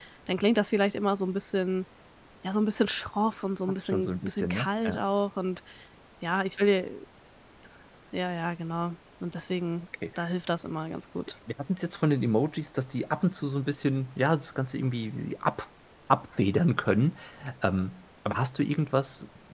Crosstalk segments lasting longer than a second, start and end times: 3.7-5.0

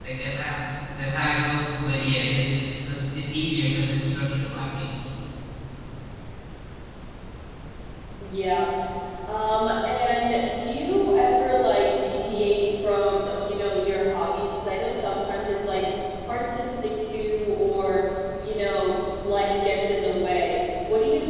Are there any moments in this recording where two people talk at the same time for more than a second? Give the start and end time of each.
none

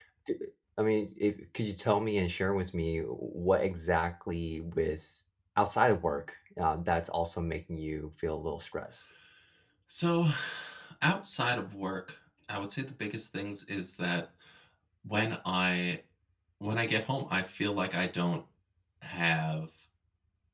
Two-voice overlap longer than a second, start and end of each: none

